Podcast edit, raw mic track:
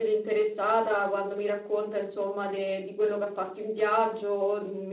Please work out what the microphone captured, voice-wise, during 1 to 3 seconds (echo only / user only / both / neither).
echo only